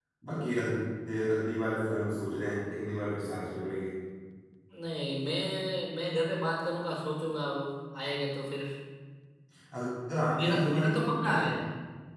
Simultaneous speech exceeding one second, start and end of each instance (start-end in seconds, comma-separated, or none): 10.2-11.4